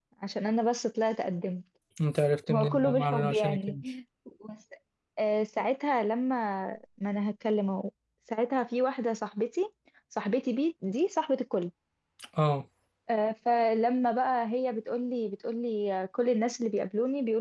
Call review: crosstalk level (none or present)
present